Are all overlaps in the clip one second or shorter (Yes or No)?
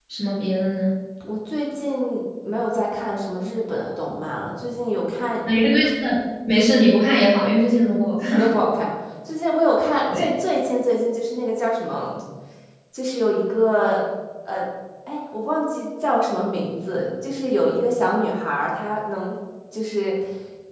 Yes